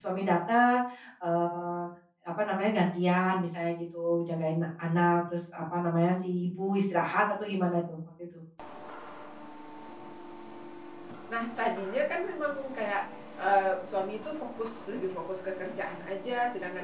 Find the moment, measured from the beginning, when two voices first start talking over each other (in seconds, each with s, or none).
none